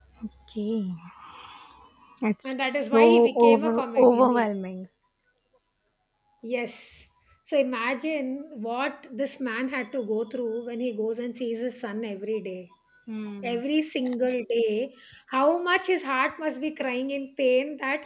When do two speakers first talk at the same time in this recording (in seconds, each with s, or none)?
2.4 s